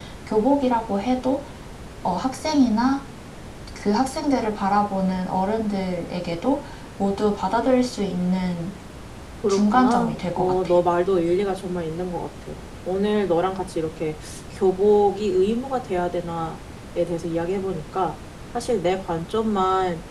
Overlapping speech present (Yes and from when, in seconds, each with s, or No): Yes, from 9.5 s